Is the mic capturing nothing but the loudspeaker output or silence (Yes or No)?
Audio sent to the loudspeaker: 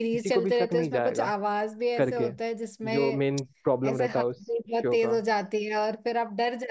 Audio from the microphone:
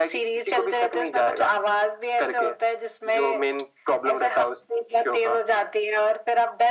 Yes